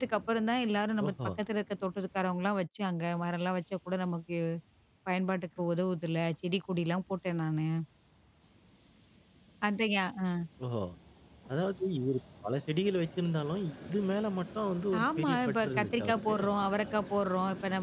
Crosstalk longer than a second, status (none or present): present